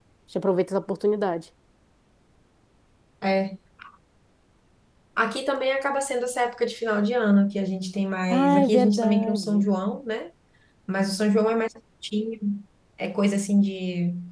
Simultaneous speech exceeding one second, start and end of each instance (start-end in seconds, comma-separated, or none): 8.3-9.6